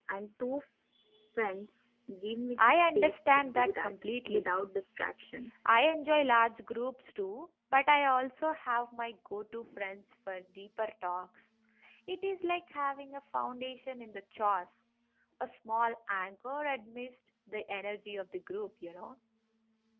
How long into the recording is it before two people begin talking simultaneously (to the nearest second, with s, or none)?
3 s